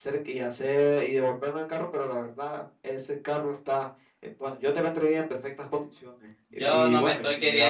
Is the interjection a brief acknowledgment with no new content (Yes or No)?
No